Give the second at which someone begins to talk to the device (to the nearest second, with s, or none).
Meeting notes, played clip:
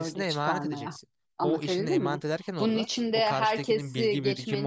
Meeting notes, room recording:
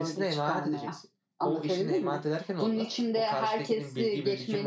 none